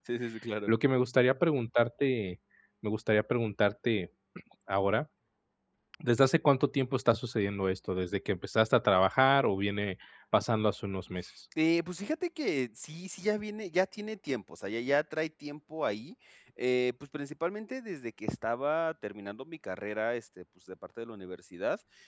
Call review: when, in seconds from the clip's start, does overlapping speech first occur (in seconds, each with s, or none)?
none